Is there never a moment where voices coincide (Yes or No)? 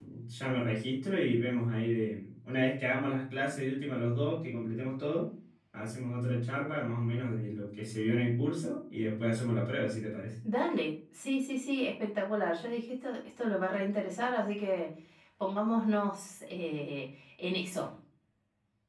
Yes